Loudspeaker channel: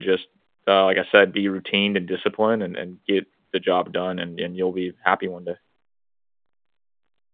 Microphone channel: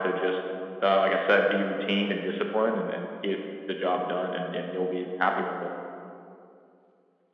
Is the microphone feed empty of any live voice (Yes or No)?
Yes